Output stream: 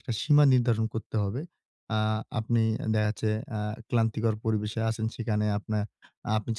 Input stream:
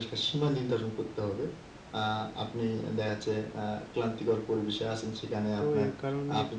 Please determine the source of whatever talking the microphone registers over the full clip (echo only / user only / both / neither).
both